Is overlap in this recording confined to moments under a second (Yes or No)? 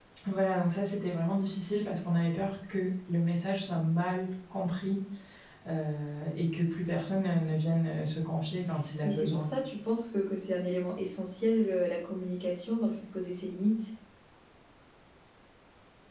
Yes